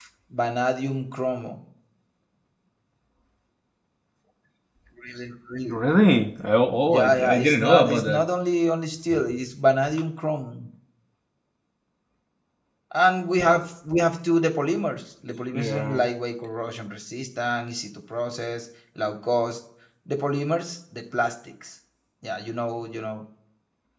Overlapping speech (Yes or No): Yes